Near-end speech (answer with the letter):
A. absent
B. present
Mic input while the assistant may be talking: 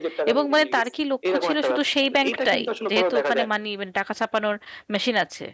B